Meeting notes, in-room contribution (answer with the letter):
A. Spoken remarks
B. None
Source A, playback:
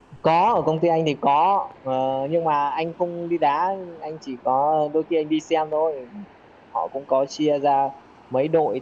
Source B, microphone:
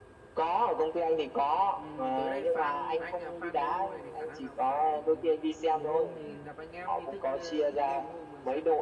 A